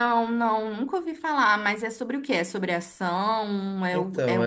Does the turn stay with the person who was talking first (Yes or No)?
No